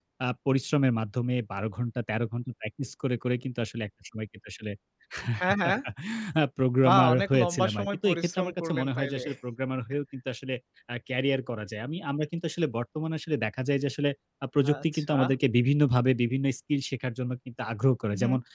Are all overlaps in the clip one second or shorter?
No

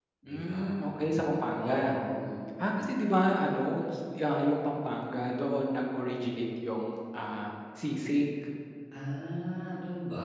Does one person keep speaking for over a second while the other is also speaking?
No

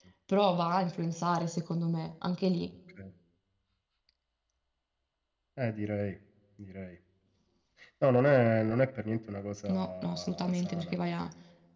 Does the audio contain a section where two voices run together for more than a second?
Yes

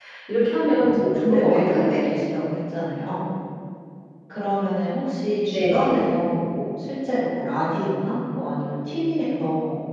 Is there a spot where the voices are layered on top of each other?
Yes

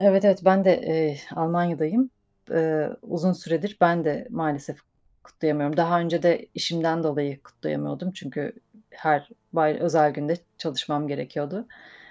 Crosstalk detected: No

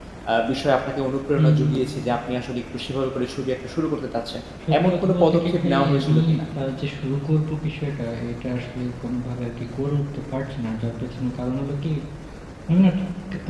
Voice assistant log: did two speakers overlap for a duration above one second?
Yes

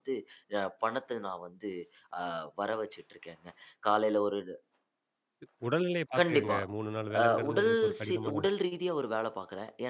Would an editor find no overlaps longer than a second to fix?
No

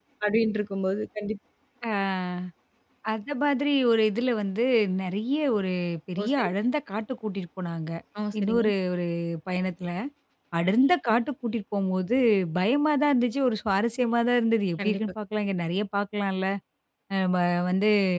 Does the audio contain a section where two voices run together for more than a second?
No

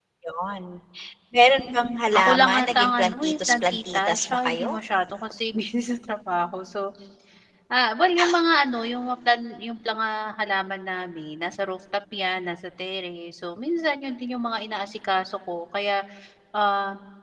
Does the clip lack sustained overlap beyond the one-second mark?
No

